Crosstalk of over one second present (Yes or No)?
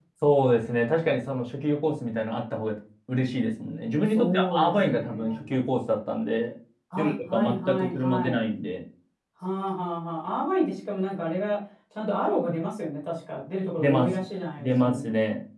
Yes